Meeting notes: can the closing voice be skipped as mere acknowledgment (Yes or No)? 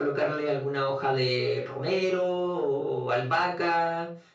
Yes